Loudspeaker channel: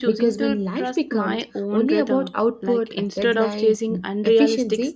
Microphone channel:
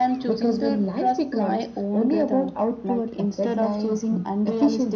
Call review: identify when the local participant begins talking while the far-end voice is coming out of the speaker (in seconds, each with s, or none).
none